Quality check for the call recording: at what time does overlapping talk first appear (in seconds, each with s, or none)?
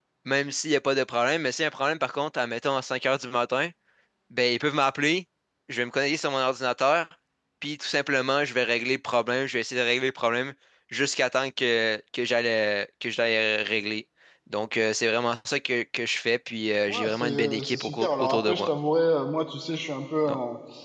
16.9 s